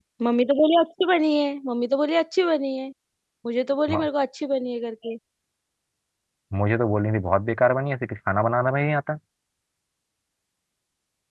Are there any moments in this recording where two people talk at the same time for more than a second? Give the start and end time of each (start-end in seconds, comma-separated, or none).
none